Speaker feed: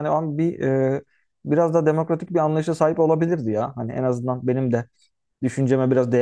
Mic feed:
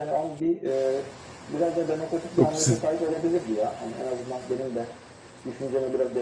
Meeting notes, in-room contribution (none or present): present